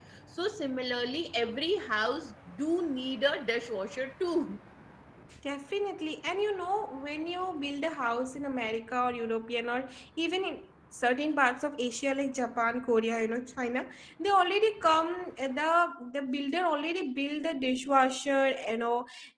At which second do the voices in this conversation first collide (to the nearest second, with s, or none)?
none